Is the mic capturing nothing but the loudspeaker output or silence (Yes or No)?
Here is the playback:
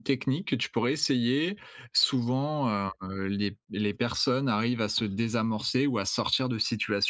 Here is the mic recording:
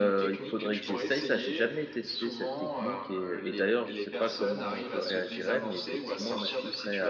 No